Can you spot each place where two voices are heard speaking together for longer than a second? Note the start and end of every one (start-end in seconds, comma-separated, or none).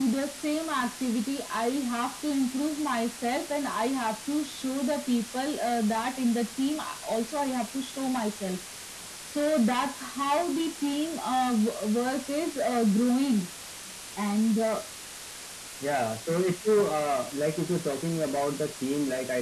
none